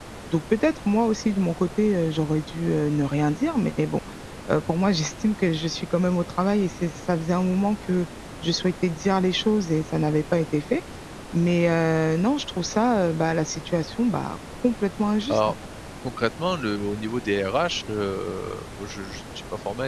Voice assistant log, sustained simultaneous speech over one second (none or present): none